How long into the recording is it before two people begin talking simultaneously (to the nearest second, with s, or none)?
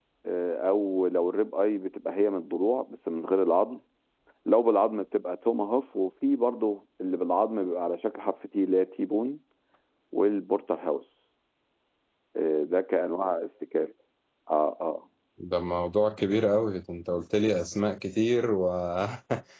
none